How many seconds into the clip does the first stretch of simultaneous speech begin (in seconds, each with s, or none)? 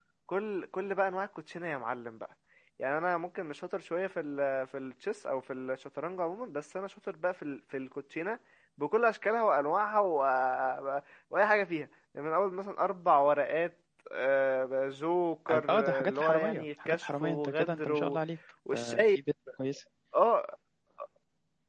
15.7 s